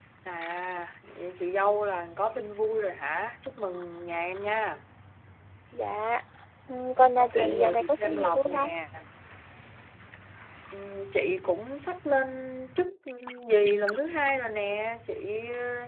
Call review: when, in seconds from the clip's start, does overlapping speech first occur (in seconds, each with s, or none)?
7.2 s